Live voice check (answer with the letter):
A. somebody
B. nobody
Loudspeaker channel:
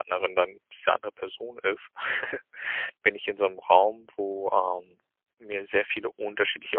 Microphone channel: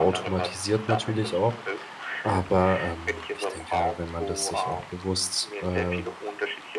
A